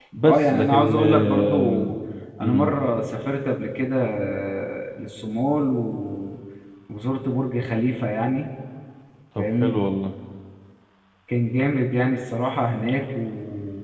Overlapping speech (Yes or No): Yes